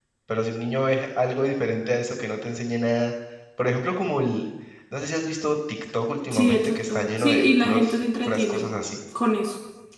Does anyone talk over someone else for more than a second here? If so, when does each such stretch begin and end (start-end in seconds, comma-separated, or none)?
6.3-8.7